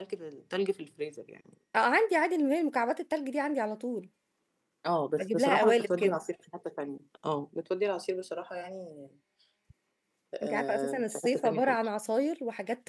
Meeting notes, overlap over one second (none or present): present